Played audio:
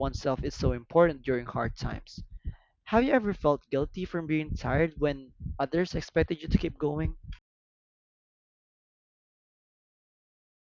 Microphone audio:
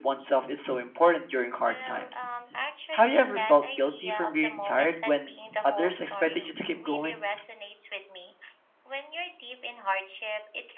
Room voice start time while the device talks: 1.6 s

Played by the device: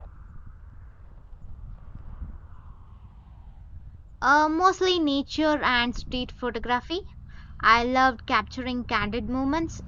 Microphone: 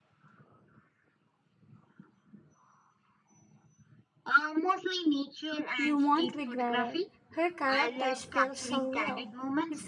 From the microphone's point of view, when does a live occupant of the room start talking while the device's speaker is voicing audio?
5.8 s

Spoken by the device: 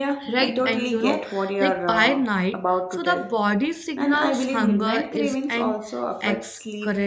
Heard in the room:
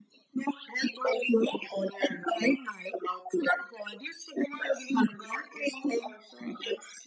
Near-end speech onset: none

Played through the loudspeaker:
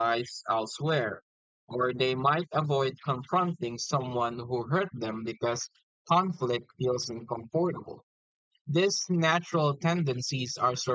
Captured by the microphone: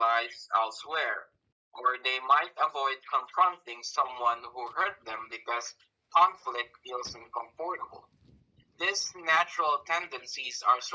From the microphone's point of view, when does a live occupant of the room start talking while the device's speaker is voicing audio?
none

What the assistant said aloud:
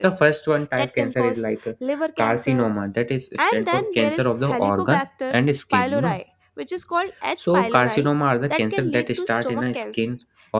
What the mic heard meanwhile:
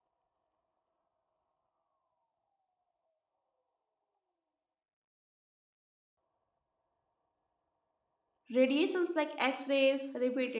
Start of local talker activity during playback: 8.5 s

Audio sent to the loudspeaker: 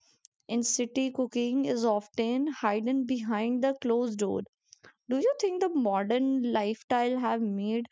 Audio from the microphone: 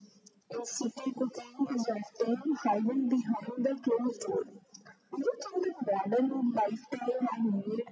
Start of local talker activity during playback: none

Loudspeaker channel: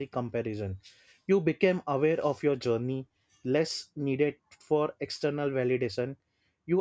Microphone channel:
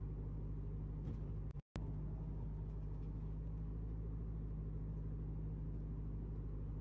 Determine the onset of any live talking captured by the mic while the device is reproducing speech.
none

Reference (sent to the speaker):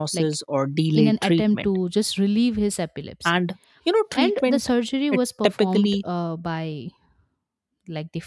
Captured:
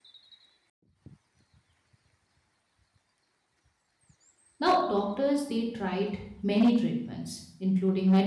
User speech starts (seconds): 4.6 s

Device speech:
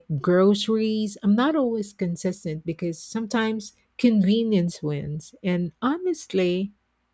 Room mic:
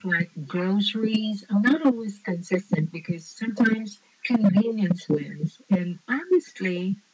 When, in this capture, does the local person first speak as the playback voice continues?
none

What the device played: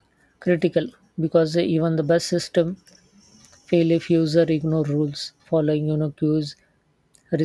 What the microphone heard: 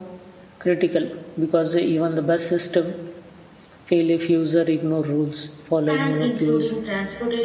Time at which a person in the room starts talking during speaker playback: 5.9 s

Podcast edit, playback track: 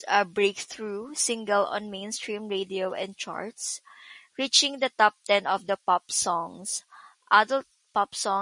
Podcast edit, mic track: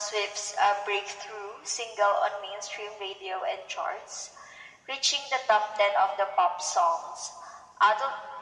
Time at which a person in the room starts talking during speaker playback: none

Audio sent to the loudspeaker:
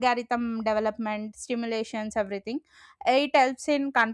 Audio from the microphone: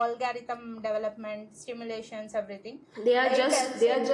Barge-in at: 3.0 s

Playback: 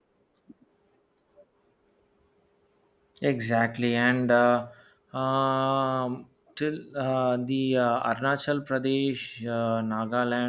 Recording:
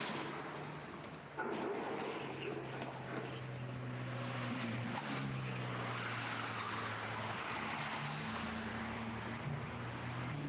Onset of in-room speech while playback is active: none

